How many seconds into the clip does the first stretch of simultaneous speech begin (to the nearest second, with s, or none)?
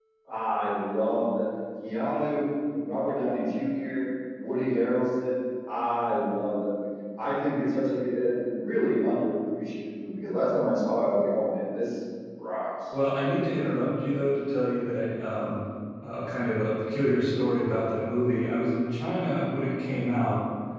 none